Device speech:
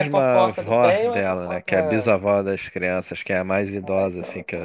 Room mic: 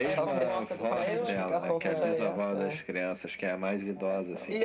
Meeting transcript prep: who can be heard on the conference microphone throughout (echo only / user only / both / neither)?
both